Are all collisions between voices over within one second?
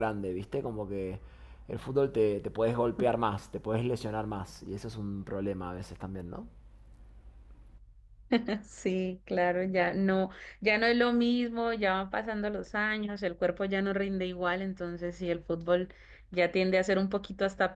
Yes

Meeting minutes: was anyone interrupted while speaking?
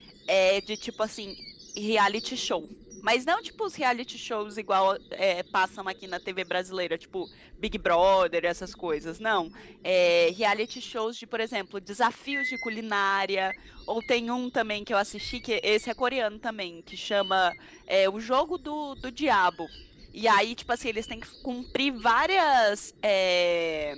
No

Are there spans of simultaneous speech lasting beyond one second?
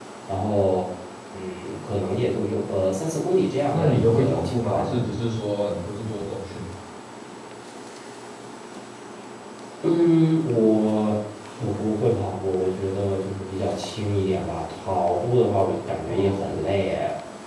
Yes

